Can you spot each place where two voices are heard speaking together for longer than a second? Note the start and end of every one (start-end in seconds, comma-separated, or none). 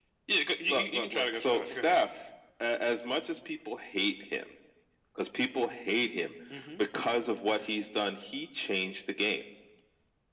0.7-2.0